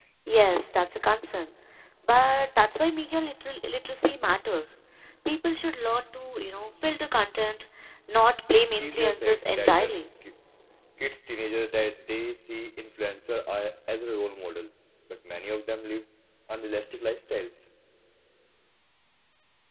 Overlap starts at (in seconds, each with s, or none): 8.8 s